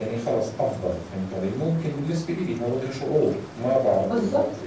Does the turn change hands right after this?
Yes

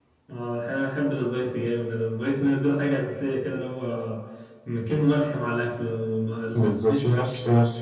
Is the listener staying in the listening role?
No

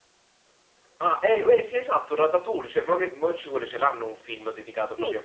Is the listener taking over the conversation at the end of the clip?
Yes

